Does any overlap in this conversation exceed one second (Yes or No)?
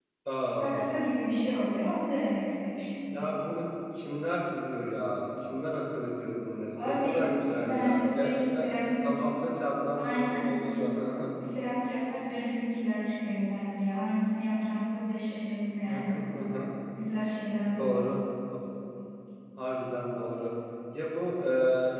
Yes